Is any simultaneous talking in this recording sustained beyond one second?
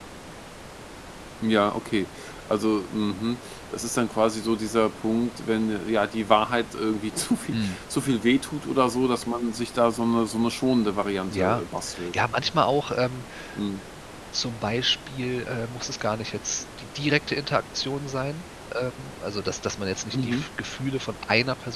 No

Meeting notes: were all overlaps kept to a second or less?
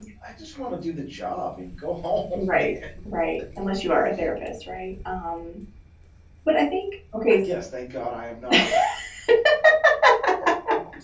Yes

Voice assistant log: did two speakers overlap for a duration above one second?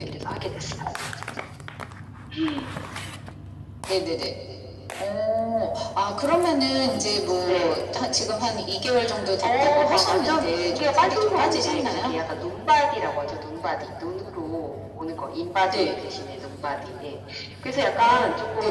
Yes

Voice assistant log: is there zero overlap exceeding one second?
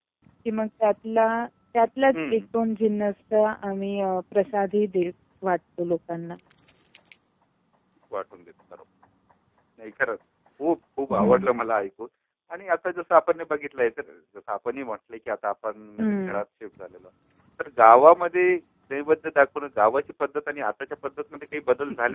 Yes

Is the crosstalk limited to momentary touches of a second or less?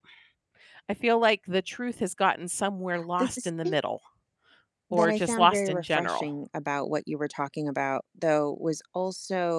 No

